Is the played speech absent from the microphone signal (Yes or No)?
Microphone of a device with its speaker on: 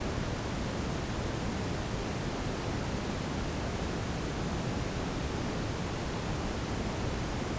Yes